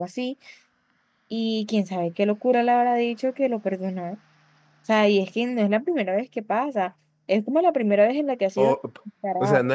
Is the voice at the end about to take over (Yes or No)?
Yes